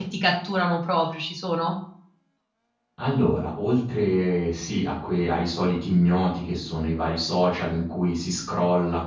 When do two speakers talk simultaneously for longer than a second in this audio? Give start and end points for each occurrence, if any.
none

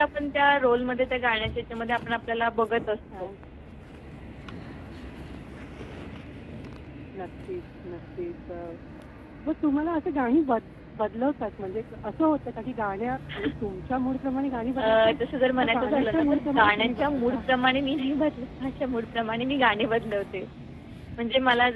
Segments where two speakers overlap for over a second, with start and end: 15.6-17.4

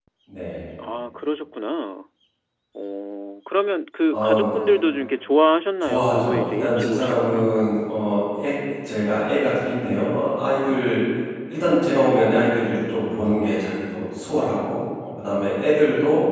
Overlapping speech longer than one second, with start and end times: 5.8-7.7

